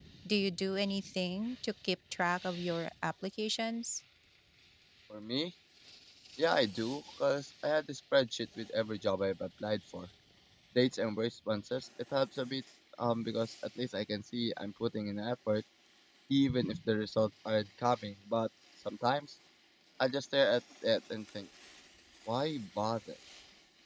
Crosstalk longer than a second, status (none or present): none